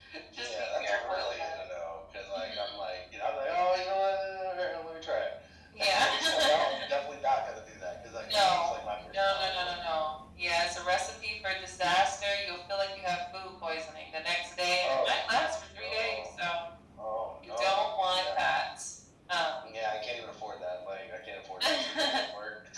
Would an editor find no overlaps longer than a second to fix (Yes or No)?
No